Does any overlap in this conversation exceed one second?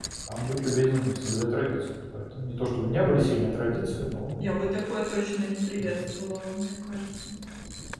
No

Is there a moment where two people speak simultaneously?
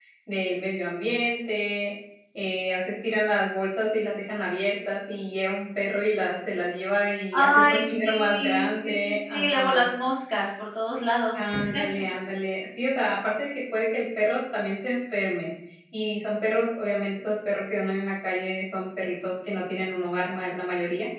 Yes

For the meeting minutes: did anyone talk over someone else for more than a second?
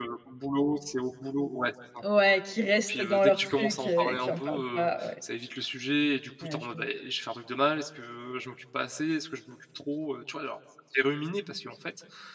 Yes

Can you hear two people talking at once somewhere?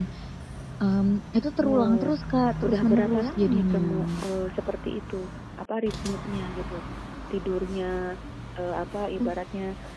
Yes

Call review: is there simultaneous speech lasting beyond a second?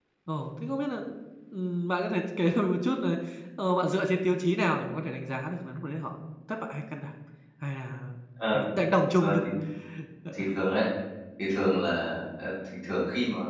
No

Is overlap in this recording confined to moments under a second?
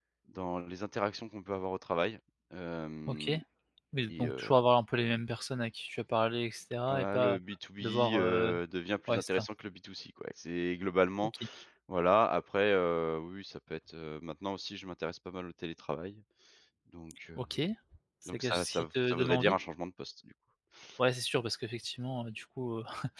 No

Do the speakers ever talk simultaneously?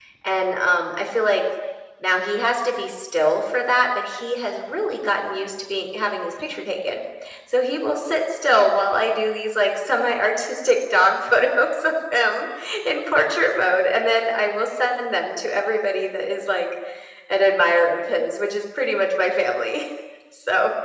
No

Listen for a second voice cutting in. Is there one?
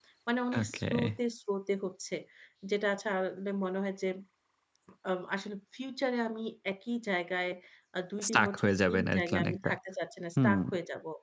Yes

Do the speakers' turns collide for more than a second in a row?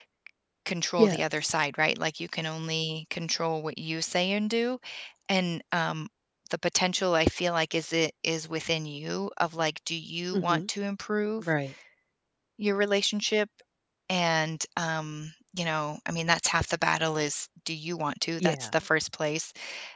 No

